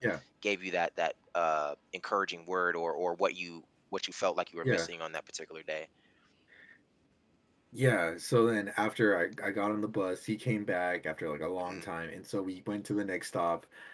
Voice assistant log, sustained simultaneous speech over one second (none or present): none